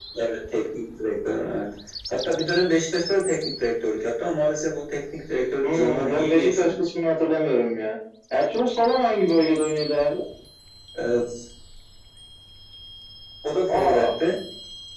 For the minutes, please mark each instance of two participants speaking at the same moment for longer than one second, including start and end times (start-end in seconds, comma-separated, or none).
5.6-6.8